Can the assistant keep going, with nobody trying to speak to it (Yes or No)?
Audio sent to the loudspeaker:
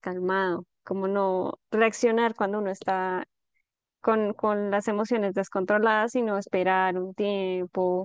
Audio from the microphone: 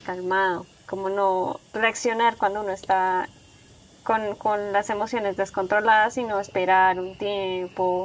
Yes